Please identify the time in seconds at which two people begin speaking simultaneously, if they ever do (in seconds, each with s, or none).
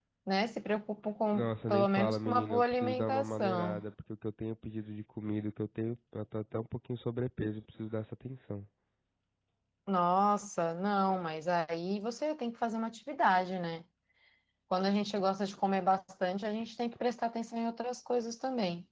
1.3 s